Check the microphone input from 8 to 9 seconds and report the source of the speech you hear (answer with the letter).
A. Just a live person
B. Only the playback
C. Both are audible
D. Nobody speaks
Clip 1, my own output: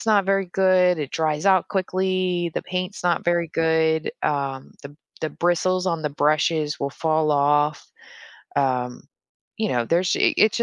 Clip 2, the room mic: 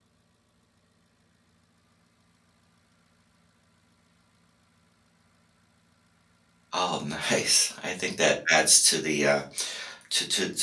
A